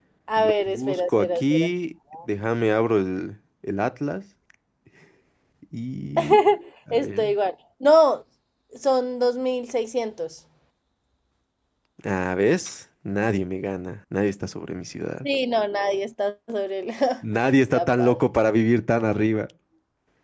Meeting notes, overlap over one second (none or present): present